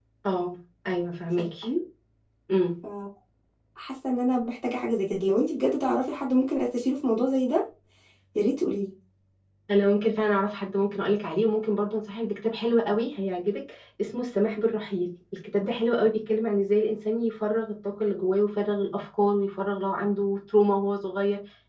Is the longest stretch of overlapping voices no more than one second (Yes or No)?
Yes